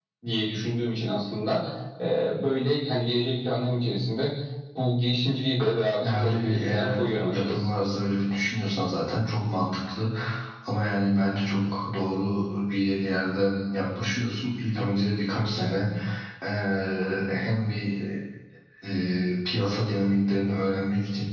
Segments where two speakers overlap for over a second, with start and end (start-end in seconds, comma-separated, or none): 6.0-7.7